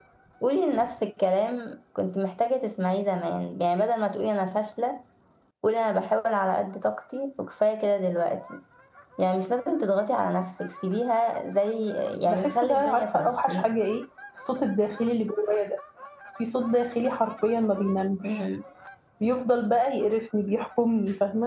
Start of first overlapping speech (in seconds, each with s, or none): 12.3 s